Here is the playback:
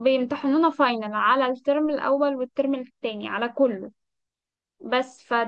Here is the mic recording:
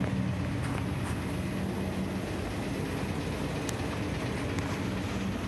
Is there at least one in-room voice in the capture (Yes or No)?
No